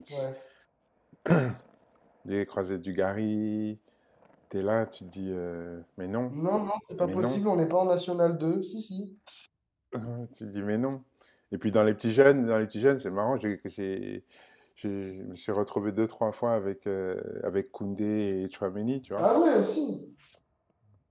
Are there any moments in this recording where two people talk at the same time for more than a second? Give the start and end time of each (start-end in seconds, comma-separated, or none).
none